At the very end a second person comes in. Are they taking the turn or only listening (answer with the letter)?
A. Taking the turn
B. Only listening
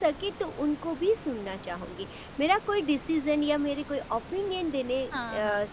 B